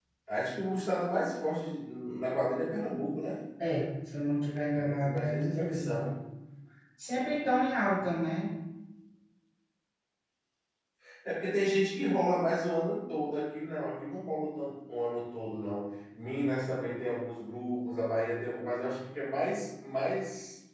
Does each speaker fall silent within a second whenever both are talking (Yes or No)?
No